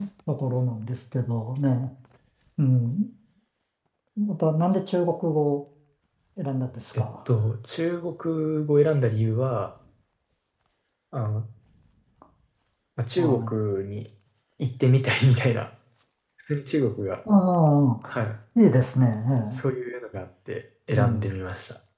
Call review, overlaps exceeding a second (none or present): none